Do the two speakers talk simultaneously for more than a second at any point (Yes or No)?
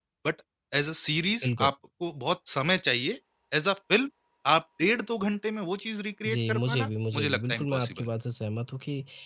Yes